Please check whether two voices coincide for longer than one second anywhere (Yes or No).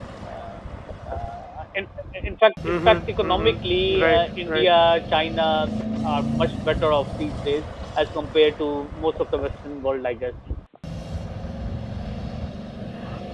Yes